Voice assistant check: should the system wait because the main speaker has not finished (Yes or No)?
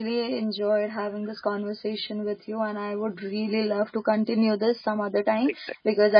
Yes